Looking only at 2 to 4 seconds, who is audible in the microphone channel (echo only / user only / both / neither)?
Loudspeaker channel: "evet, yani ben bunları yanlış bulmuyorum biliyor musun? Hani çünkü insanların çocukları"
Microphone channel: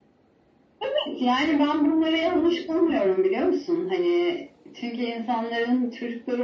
echo only